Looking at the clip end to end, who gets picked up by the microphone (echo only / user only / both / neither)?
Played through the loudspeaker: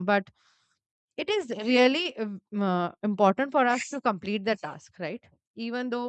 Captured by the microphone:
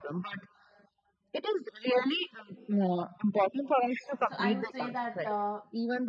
both